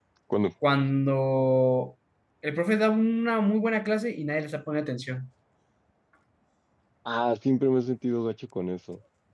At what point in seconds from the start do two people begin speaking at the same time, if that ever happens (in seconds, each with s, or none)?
none